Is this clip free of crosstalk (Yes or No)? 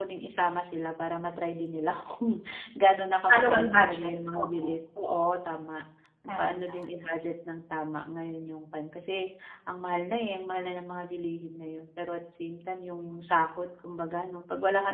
No